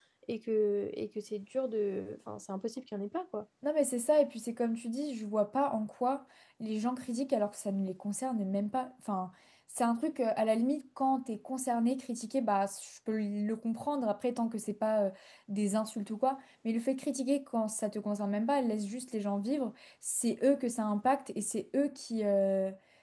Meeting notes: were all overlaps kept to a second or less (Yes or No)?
Yes